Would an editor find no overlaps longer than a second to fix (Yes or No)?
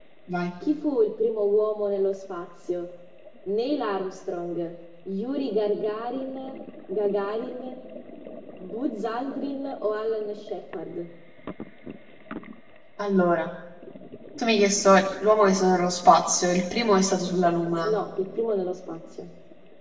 Yes